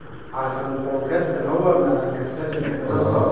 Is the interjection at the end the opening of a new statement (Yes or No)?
Yes